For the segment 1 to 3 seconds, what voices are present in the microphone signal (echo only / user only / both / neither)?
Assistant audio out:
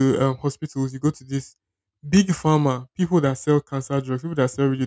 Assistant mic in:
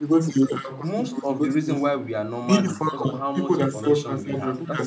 both